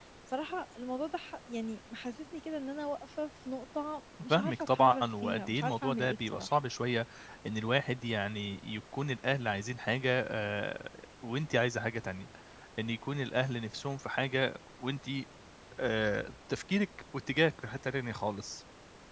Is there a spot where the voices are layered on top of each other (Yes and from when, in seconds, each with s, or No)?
Yes, from 4.1 s